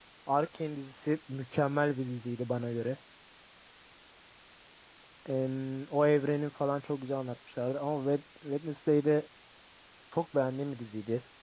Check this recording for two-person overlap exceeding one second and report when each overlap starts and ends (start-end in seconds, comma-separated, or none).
none